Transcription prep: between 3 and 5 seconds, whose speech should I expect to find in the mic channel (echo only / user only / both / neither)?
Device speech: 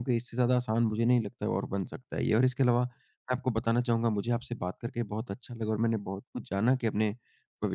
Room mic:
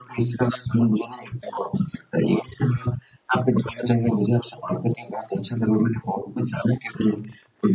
echo only